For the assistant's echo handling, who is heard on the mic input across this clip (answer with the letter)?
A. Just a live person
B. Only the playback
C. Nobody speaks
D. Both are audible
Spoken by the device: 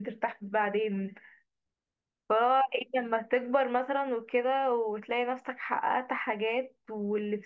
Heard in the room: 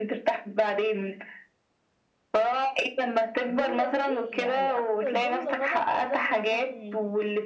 D